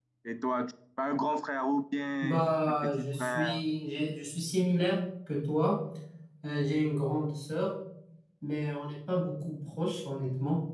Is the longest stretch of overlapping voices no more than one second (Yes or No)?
No